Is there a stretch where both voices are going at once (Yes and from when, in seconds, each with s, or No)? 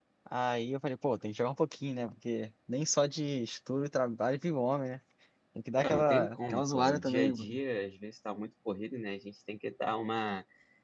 Yes, from 5.8 s